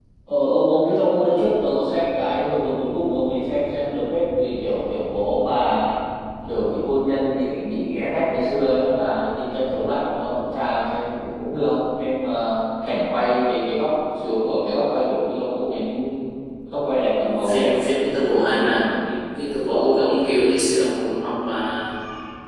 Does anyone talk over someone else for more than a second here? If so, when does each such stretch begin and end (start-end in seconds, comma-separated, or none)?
17.2-18.9